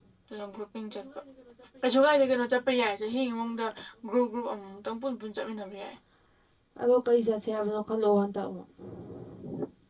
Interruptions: none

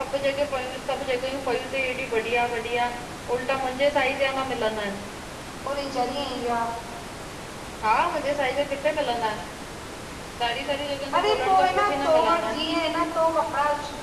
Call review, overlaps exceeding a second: present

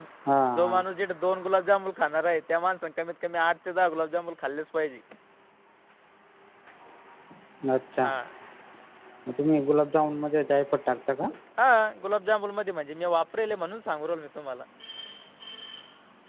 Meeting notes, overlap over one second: none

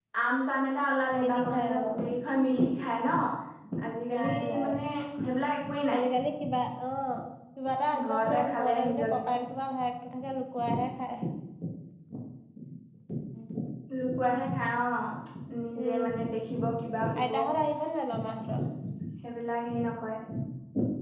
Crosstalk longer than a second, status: present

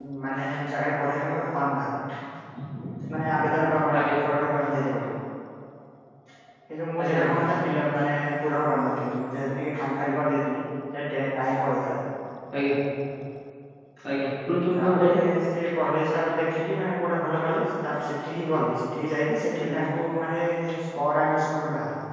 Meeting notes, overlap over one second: none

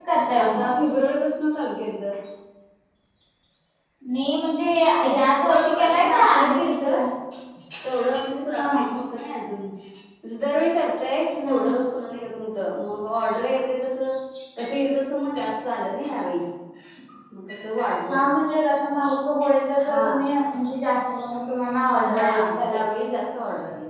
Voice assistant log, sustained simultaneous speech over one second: present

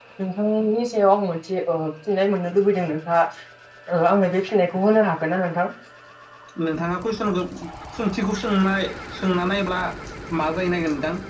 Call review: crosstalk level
none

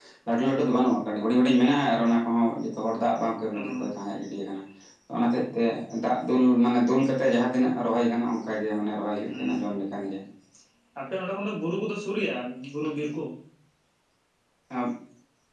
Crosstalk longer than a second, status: none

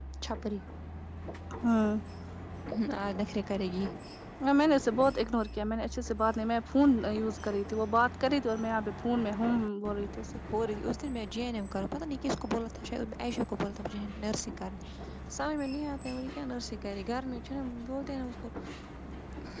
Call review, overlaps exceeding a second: none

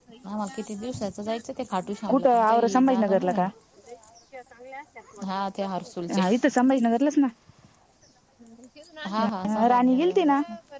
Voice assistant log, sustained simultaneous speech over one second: present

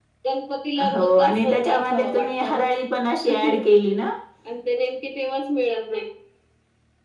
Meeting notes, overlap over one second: present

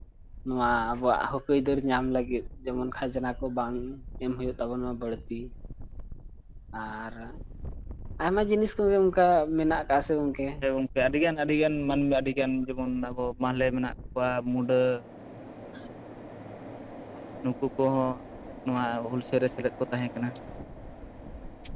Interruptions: none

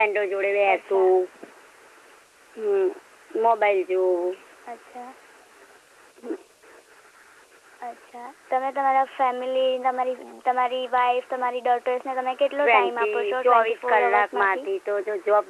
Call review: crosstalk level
present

